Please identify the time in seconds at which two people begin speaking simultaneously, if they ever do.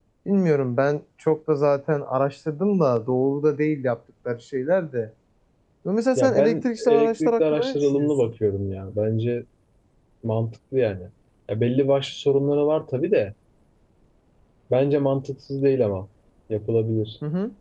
6 s

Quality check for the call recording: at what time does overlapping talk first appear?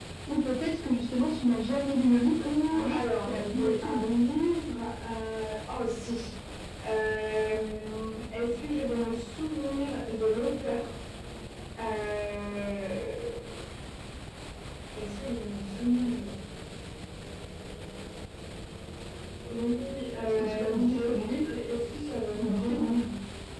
2 s

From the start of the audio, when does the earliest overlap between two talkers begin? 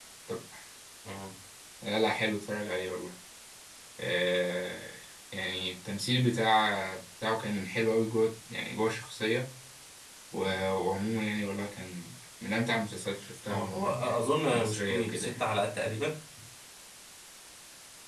13 s

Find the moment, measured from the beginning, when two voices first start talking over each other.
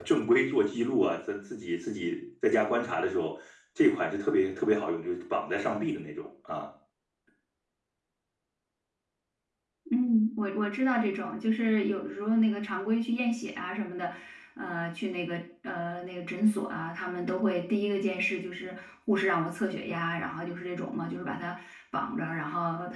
none

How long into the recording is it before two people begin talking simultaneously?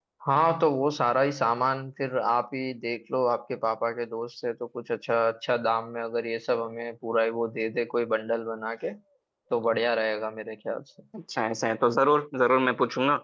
none

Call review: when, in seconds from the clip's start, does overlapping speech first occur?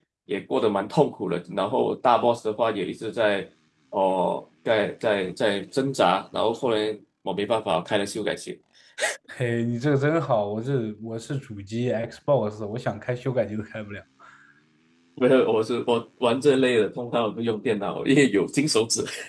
none

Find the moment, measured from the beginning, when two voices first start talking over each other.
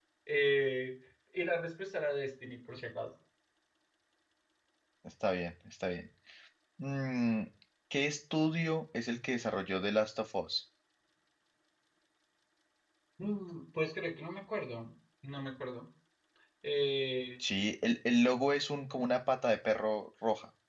none

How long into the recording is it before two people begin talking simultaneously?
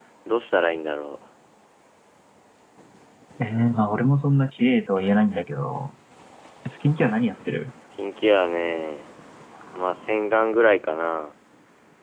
none

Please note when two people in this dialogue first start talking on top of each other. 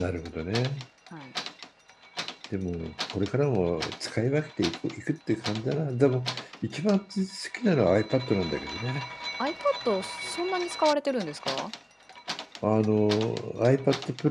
none

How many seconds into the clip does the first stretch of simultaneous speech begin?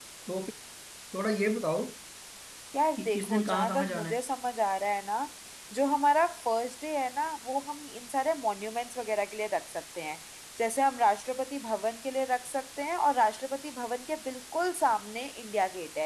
3 s

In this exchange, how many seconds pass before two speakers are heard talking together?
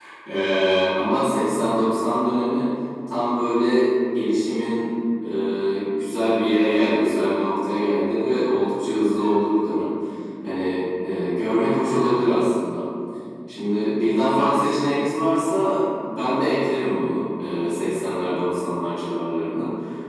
none

